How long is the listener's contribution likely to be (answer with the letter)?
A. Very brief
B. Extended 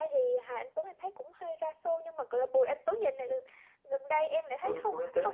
B